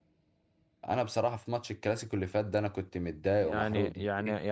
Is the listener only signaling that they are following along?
No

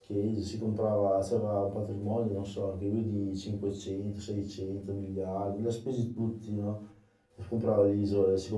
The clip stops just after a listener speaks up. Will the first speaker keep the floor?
Yes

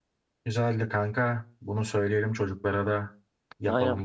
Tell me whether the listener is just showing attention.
No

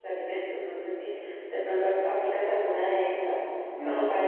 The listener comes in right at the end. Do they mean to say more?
No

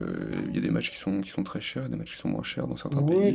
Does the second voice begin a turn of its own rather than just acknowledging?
Yes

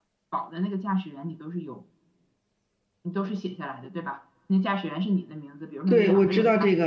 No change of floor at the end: No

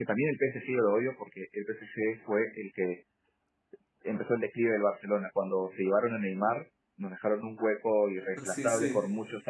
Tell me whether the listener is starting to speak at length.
No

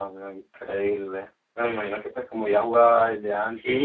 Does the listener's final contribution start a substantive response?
Yes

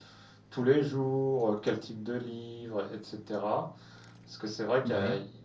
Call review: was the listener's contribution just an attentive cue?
Yes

